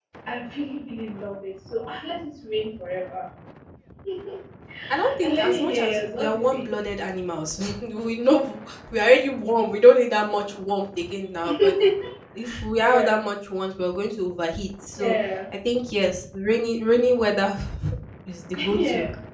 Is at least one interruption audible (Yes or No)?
Yes